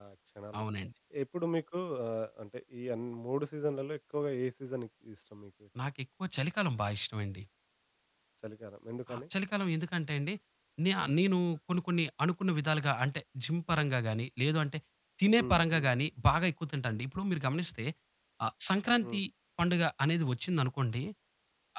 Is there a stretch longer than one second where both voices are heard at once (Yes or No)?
No